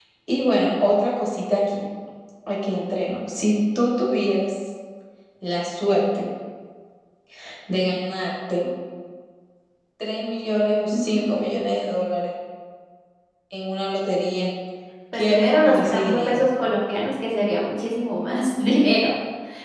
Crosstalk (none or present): present